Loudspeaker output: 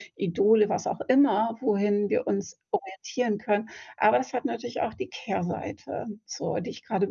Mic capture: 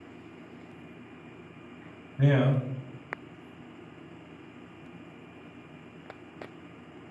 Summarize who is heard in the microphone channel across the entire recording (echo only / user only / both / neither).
user only